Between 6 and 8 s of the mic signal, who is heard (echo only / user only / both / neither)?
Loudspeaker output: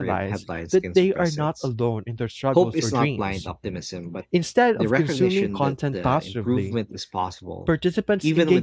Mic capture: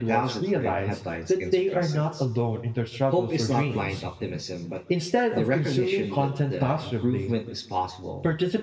echo only